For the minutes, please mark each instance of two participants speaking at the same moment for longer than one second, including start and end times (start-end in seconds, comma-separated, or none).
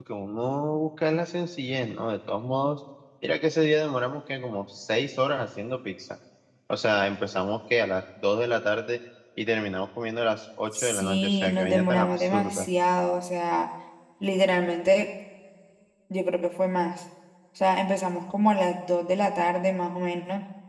10.7-12.7